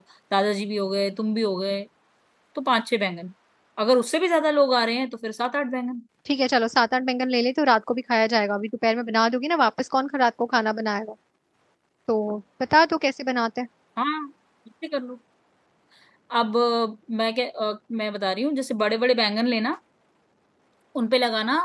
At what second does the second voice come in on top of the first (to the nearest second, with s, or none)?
none